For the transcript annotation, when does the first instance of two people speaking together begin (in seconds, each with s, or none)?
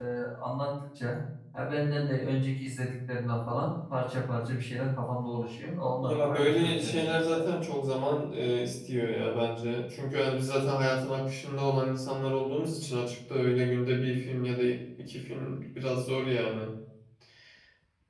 6.0 s